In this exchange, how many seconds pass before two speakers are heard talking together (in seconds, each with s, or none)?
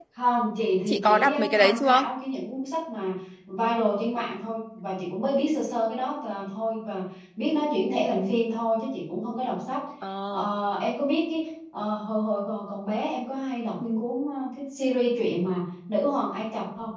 0.9 s